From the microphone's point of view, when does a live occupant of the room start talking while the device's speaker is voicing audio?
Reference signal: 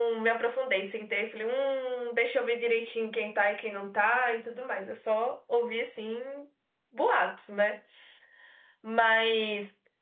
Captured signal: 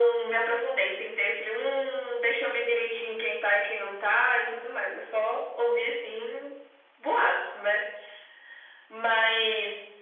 none

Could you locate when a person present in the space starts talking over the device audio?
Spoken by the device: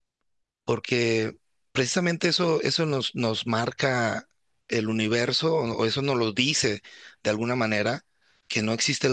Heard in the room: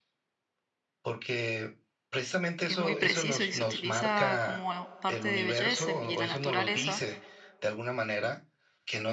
3 s

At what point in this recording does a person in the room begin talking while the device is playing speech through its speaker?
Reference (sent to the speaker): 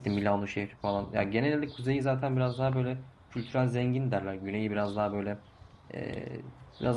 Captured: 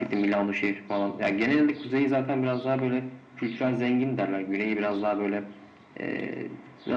none

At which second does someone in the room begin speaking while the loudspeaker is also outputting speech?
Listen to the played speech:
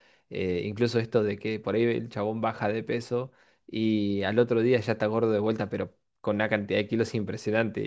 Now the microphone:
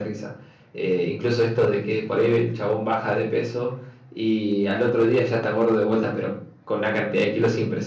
none

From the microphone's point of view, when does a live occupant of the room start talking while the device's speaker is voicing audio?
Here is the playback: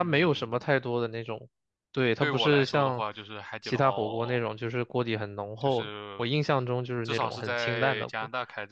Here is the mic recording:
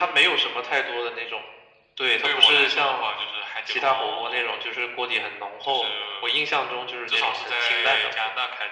none

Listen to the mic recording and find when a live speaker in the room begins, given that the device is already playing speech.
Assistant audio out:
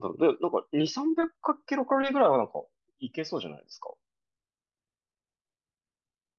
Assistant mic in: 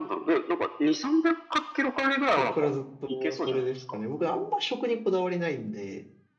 2 s

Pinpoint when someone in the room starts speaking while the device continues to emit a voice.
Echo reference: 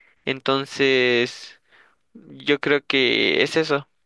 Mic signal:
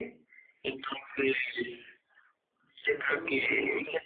3 s

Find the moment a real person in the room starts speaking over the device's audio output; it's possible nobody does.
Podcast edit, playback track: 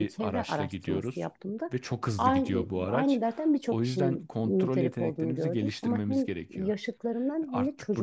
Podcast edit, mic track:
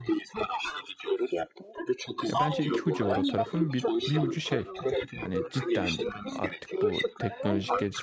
2 s

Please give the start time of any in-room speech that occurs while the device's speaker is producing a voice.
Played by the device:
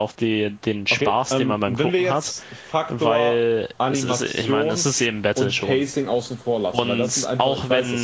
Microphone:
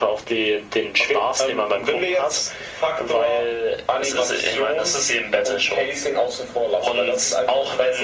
none

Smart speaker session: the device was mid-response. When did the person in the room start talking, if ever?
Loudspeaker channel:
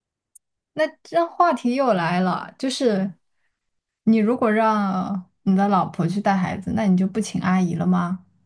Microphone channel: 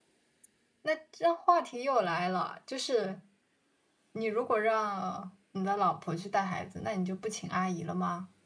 none

